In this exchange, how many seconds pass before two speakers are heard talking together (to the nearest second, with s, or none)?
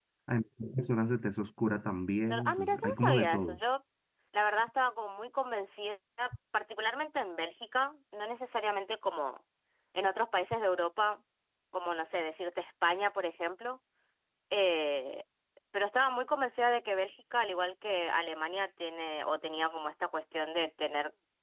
2 s